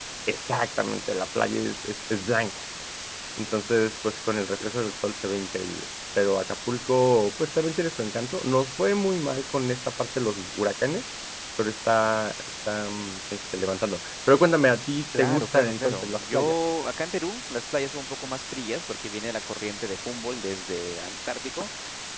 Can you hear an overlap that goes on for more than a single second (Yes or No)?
Yes